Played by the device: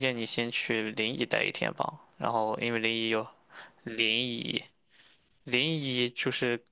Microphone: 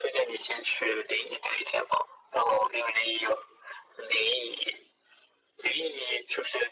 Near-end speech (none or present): none